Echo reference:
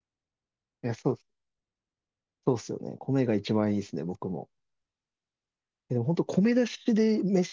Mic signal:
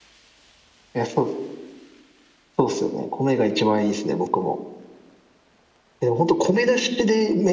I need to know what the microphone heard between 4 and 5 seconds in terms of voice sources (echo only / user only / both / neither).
echo only